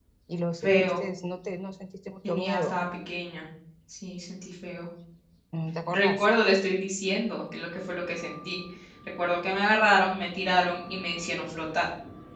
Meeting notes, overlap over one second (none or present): none